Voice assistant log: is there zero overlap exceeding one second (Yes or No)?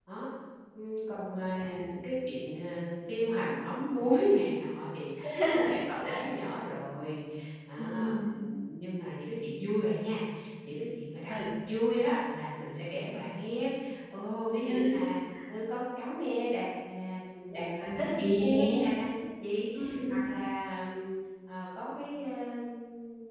No